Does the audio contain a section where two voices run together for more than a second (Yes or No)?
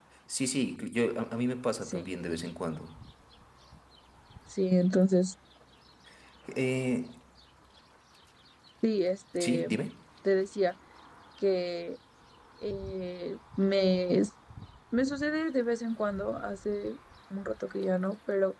No